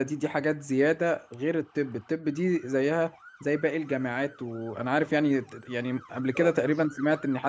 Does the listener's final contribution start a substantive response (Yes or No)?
No